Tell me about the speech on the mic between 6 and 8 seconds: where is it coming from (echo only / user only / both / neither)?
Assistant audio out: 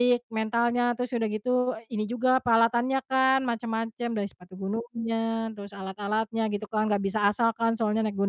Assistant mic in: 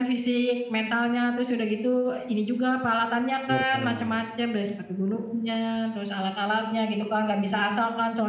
echo only